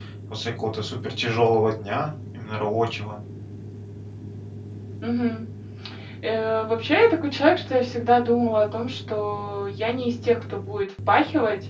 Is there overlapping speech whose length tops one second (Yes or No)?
No